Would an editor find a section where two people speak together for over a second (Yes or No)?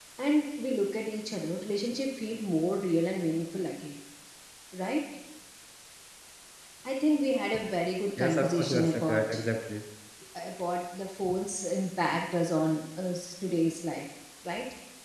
Yes